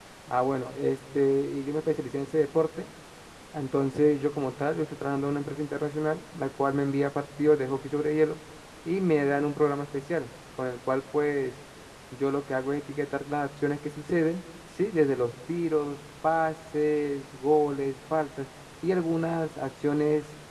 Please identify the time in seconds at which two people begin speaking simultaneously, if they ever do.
none

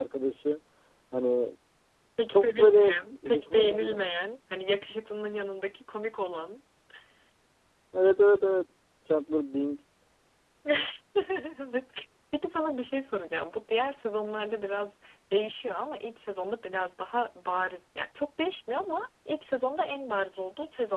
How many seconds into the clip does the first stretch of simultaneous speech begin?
2.3 s

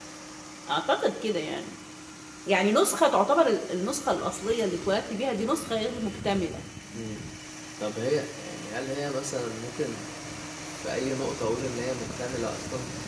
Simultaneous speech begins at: none

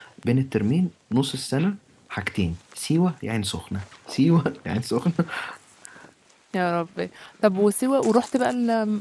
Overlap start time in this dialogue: none

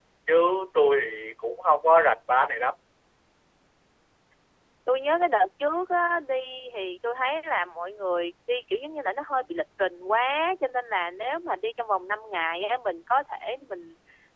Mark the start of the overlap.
none

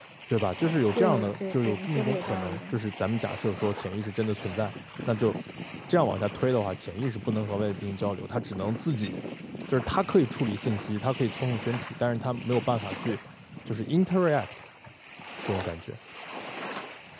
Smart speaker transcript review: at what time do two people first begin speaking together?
0.9 s

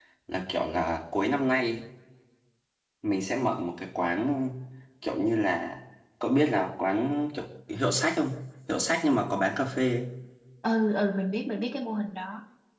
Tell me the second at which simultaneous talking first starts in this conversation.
none

